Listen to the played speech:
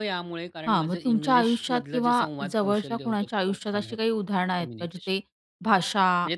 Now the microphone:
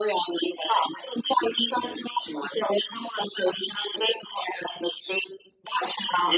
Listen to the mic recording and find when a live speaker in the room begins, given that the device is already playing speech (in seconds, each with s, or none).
none